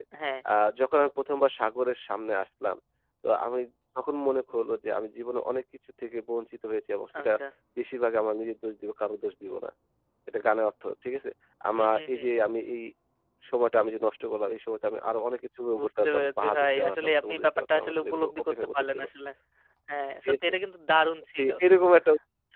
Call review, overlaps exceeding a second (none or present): present